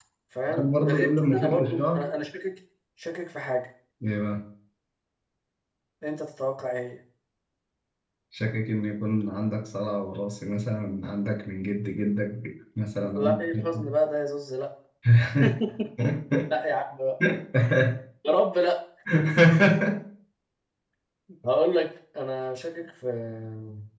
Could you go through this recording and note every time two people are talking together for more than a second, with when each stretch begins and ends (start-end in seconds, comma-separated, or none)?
0.6-2.0